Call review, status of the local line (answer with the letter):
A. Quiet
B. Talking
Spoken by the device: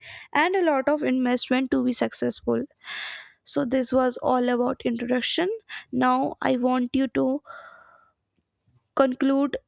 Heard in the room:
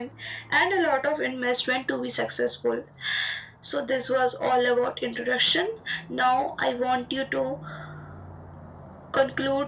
A